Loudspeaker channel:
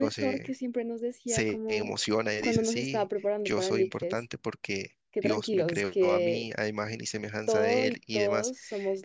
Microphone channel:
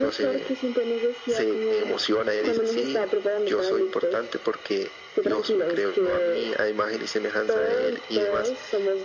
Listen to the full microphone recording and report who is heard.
echo only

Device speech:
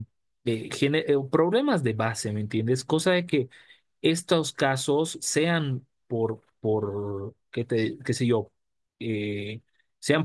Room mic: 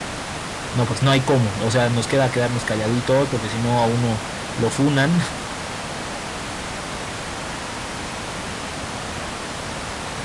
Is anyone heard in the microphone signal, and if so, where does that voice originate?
user only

